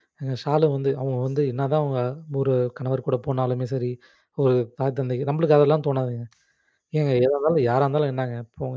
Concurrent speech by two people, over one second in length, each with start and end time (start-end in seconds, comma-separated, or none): none